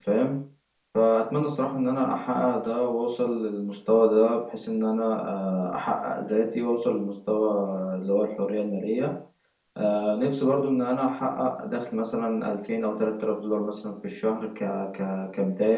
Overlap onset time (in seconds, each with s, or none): none